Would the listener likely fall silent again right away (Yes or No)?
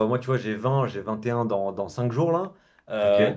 Yes